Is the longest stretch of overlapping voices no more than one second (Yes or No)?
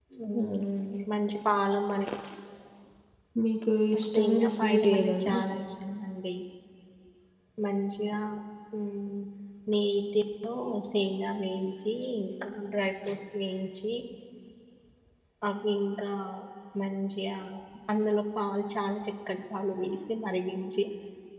No